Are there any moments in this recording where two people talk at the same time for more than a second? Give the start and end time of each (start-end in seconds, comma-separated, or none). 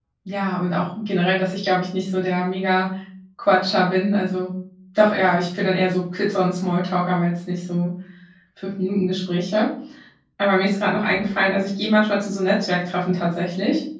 none